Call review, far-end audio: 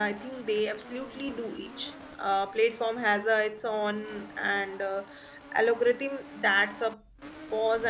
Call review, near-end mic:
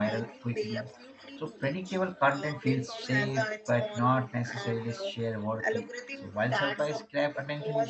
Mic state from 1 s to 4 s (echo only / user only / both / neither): both